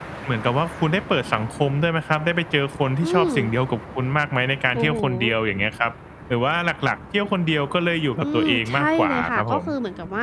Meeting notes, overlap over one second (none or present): present